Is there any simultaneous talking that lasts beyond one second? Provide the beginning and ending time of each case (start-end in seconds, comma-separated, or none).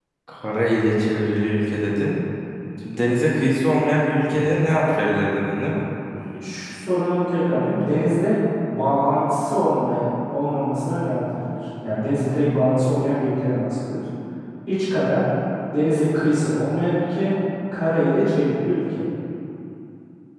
none